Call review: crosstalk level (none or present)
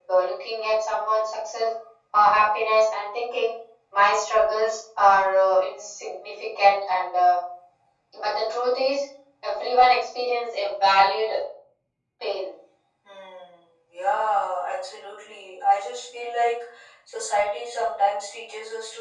none